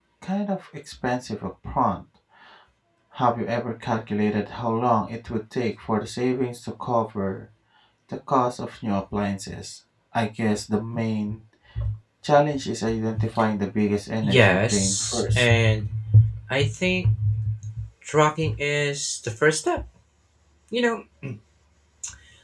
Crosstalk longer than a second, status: present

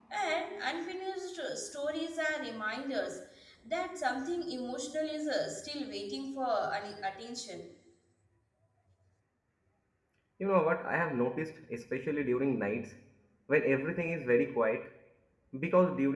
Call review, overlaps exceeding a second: none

